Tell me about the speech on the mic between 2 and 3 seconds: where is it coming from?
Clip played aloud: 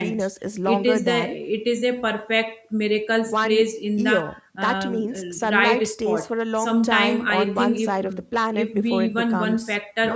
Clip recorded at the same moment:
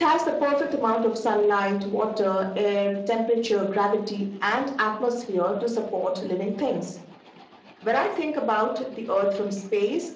user only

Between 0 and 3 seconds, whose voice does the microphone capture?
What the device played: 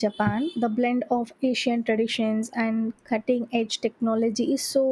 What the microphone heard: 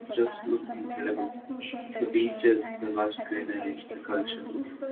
both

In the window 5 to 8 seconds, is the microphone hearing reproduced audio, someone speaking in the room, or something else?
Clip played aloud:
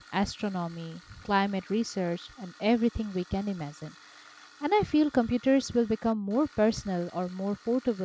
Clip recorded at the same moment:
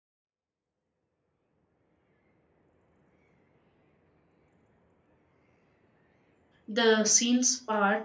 user only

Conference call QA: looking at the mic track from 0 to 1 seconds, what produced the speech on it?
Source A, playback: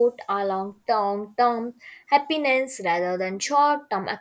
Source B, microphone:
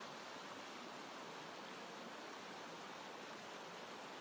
neither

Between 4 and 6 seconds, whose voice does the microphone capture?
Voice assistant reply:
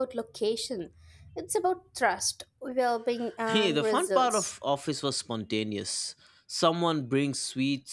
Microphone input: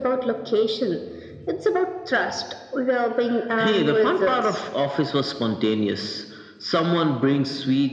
echo only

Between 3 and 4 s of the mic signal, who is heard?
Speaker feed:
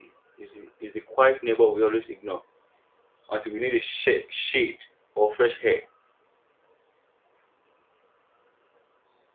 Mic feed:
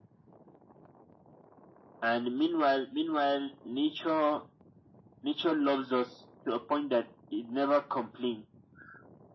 user only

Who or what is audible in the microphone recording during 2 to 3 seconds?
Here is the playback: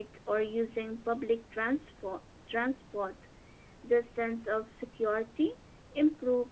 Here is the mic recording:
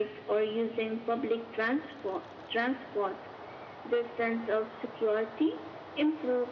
echo only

